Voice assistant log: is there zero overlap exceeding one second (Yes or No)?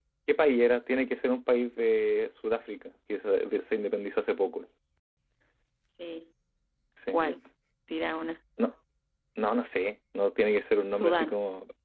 Yes